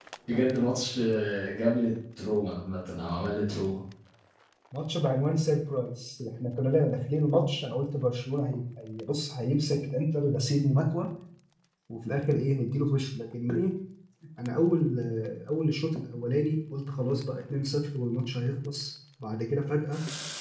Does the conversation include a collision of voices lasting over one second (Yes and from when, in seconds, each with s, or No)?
No